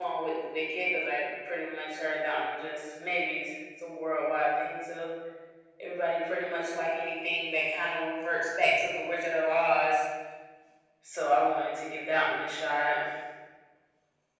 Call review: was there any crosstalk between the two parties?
No

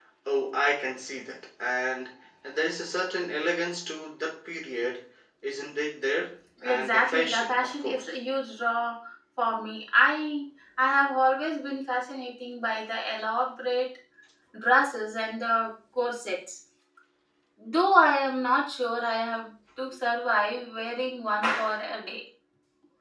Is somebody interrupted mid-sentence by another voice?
Yes, from 6.6 s

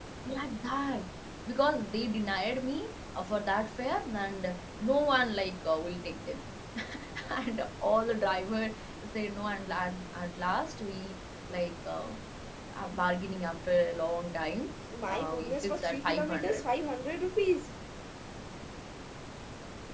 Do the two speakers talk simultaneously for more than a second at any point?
Yes, from 15.1 s

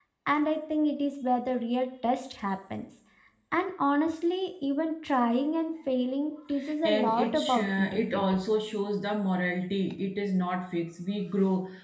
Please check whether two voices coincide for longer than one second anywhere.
Yes, from 6.8 s

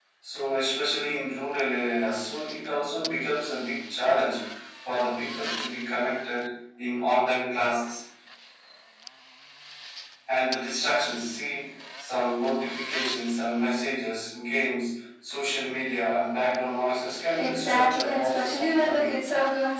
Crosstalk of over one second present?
Yes, from 17.4 s

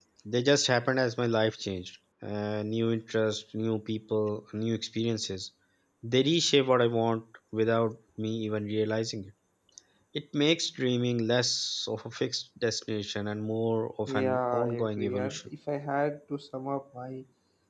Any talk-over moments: Yes, from 14.1 s

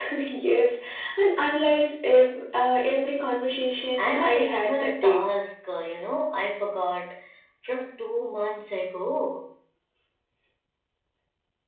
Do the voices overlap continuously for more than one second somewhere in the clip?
Yes, from 4.0 s

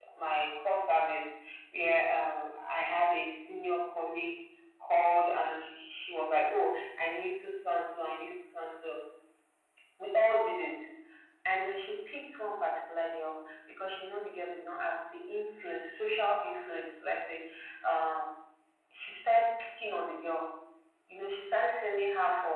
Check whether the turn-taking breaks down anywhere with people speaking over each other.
No

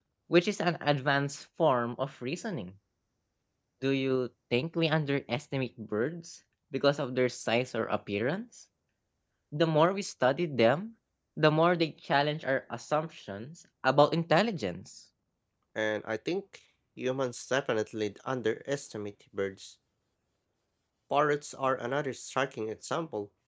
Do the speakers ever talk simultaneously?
No

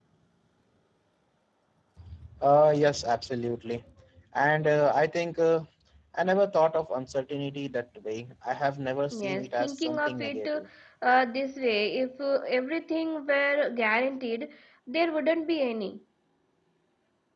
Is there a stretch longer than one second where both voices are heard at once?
Yes, from 9.1 s

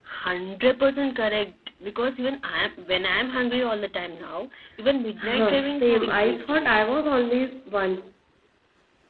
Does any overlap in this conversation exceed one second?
Yes, from 5.2 s

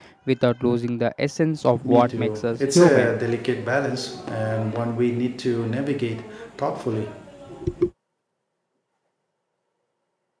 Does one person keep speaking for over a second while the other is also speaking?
Yes, from 1.8 s

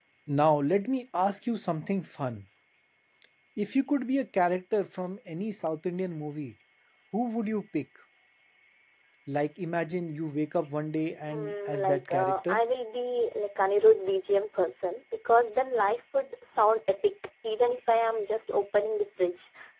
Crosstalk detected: Yes, from 11.2 s

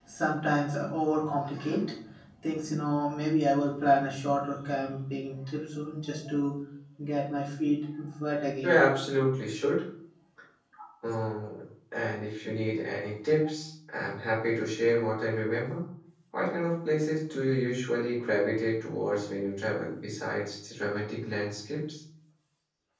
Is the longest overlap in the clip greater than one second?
No

